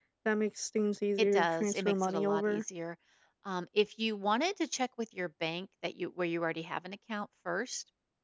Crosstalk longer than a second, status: present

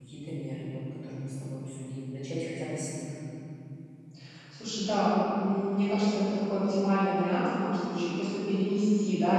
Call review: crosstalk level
none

